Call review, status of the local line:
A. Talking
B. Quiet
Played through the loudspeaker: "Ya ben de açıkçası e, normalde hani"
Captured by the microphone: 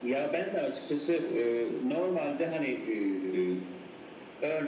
B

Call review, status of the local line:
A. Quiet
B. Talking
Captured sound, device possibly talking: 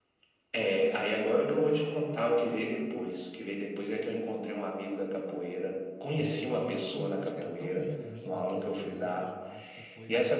B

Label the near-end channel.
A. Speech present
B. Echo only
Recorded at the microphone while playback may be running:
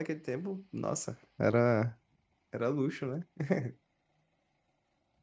A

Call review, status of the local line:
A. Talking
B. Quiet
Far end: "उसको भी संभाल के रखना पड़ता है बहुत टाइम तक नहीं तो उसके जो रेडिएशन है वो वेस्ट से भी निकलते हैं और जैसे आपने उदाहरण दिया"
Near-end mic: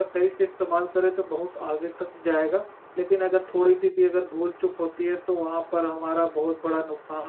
A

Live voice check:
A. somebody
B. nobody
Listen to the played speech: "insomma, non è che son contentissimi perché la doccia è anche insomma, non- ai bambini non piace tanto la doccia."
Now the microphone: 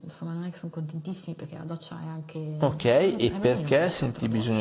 A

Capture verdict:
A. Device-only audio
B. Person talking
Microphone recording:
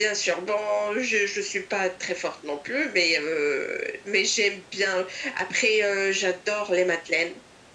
A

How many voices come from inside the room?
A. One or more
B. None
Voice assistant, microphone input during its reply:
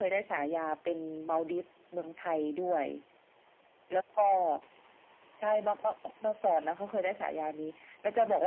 B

